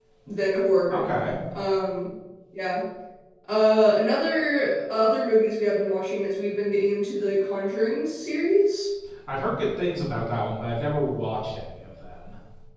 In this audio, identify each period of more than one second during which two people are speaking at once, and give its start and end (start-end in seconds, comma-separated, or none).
none